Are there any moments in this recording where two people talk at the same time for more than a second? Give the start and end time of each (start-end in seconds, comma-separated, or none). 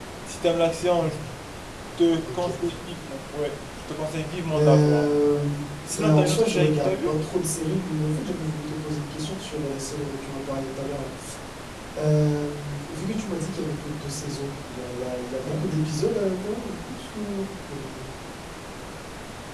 5.9-7.1